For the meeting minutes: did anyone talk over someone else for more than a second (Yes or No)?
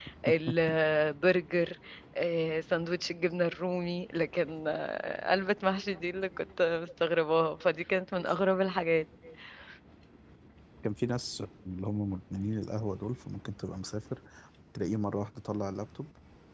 No